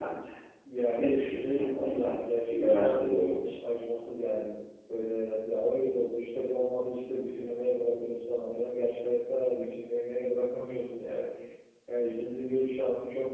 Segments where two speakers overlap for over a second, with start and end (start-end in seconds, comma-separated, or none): 1.0-3.5